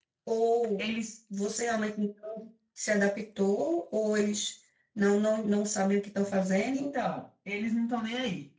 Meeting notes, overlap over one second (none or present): none